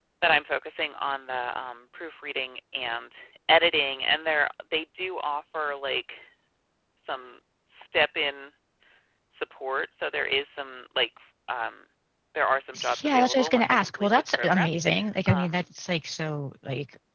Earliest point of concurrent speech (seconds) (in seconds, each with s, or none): 13.0 s